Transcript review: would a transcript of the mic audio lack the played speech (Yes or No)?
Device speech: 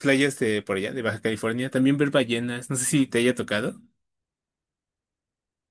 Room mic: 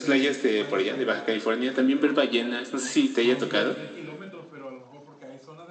No